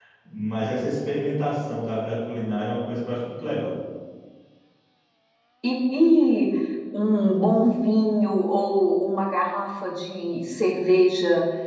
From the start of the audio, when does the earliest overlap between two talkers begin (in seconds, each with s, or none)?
none